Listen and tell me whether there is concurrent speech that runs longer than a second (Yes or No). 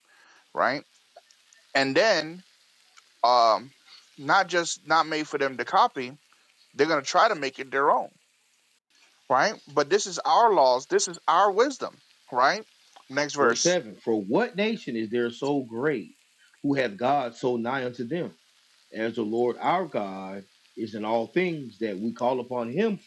No